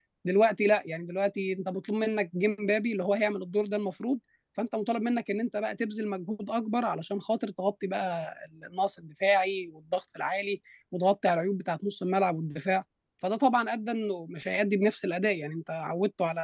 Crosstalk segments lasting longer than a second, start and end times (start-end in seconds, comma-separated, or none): none